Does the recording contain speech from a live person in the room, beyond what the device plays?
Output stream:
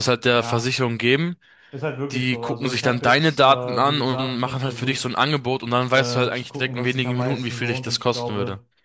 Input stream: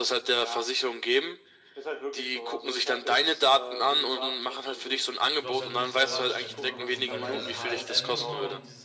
Yes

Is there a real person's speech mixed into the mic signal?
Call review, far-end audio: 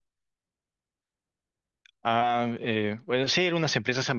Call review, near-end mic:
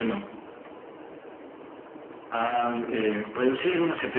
No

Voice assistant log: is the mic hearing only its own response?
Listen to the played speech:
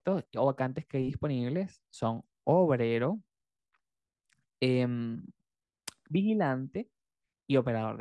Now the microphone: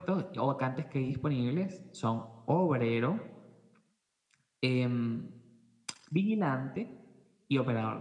Yes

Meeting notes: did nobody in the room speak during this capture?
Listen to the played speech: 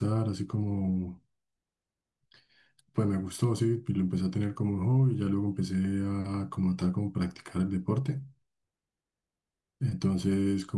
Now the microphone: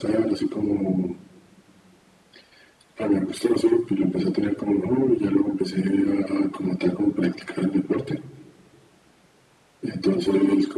Yes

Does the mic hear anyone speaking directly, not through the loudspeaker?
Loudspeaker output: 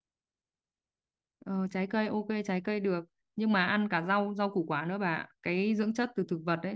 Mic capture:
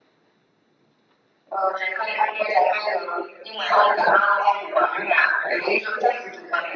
No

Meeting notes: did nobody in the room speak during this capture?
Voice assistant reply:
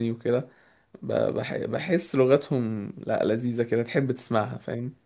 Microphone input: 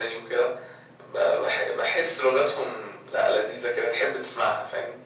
Yes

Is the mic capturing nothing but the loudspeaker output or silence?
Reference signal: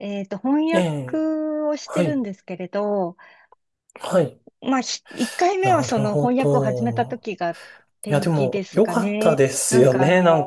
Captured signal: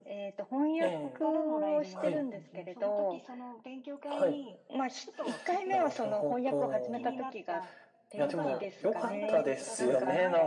No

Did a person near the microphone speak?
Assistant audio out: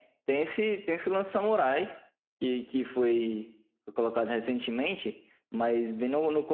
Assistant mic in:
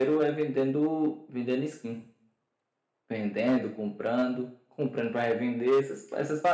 Yes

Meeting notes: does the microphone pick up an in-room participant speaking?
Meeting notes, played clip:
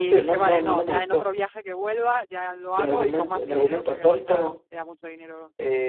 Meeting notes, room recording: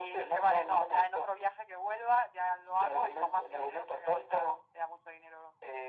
No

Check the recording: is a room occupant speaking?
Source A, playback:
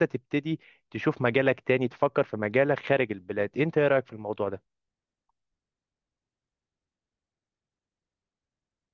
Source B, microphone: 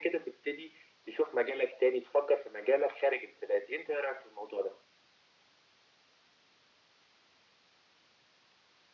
No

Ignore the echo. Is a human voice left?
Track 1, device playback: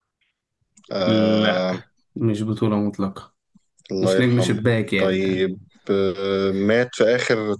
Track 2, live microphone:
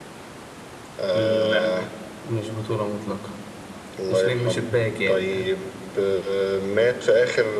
No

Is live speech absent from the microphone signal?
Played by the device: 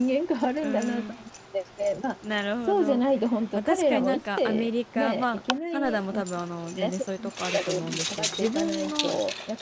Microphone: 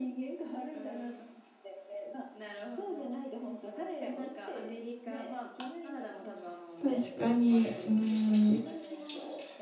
No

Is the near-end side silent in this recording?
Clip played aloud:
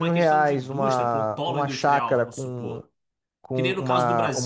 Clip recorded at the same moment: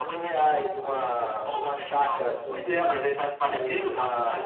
No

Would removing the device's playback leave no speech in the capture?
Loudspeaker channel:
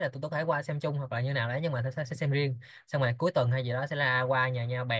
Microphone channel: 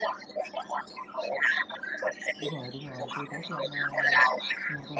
No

